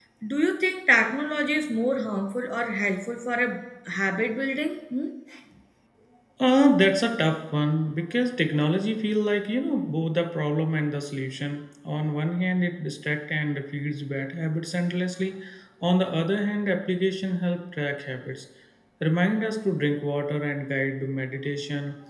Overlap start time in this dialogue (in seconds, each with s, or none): none